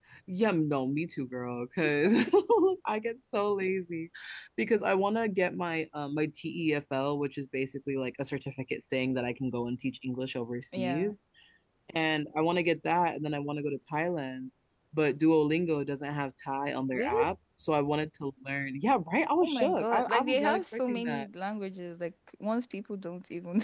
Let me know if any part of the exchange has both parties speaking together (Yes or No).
Yes